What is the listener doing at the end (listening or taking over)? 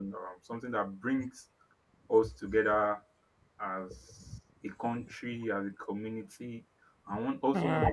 listening